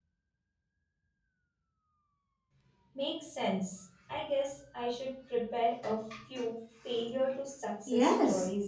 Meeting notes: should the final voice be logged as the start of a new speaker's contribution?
Yes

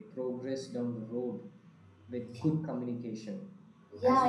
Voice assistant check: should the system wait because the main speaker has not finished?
No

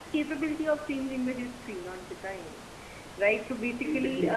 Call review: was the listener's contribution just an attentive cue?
Yes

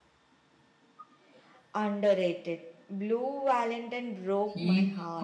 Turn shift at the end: Yes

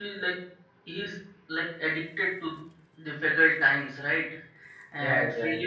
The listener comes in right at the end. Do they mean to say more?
No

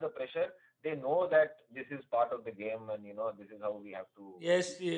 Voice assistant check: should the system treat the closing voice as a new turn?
Yes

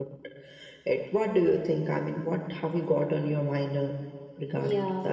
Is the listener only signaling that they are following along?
No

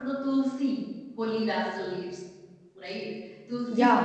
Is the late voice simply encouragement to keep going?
Yes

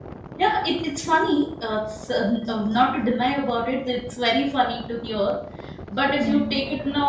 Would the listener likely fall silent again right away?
Yes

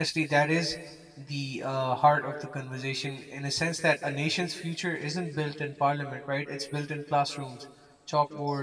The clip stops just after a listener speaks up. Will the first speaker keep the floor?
Yes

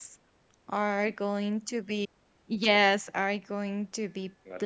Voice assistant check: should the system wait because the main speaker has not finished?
Yes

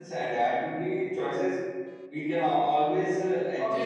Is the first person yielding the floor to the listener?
Yes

